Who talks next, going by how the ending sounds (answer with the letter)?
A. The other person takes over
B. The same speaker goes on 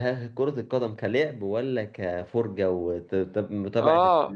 A